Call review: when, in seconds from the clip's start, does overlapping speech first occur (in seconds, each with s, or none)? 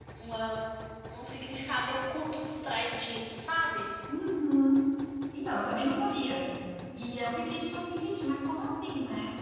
none